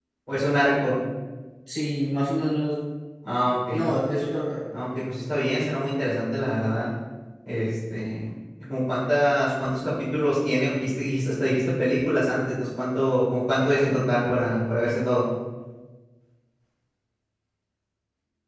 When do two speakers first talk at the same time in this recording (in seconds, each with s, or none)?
none